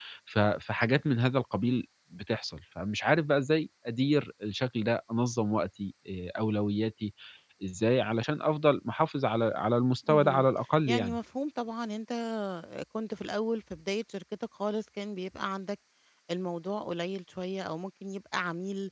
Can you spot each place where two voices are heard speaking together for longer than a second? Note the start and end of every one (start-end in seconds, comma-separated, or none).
none